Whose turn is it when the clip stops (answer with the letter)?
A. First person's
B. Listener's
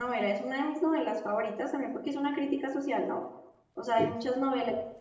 A